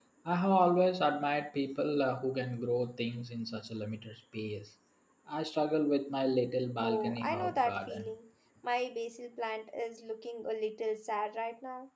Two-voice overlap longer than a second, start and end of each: 6.8-8.1

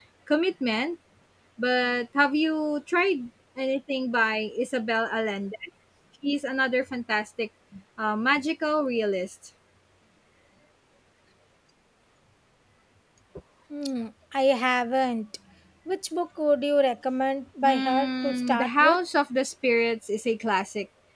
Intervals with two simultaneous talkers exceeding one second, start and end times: 17.6-19.0

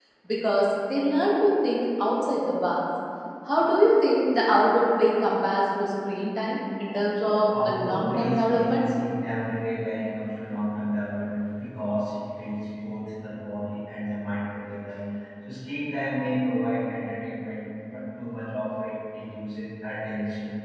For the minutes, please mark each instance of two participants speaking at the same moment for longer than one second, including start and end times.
7.3-8.8

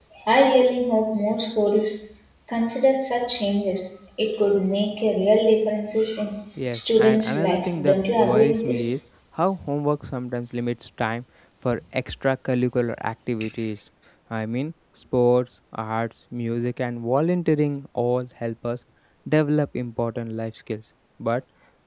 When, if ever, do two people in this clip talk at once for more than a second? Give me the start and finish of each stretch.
6.7-8.9

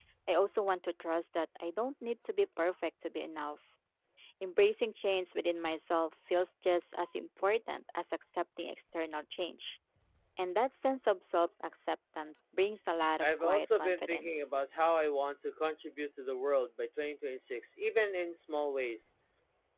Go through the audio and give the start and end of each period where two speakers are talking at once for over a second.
13.2-14.5

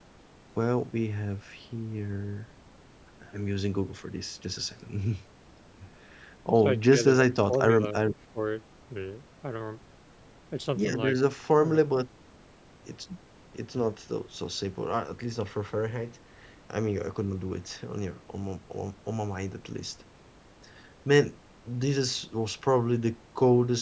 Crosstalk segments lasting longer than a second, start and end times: 6.5-7.9

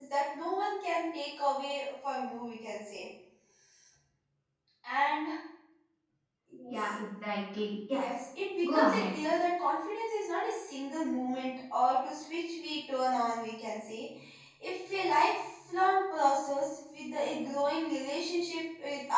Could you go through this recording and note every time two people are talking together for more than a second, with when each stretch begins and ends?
none

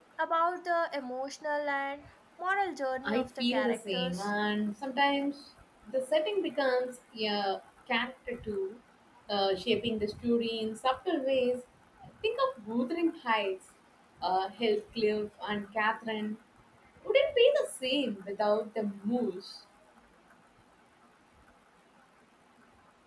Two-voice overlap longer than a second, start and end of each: 3.0-4.3

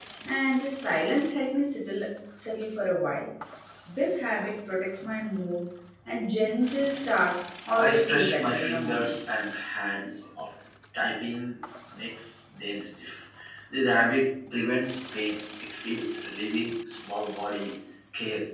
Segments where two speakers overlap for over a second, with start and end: 7.8-9.4

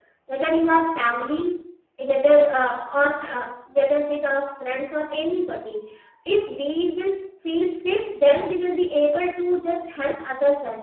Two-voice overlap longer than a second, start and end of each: none

